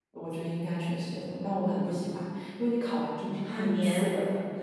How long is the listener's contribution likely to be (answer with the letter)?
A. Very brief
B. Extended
A